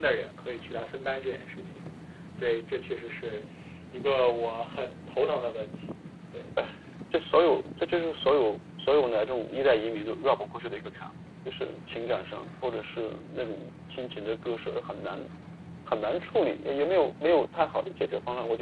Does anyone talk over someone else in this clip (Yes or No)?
No